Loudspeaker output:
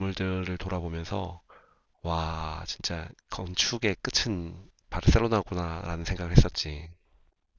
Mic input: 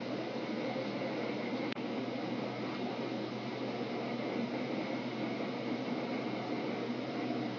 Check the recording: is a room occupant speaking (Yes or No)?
No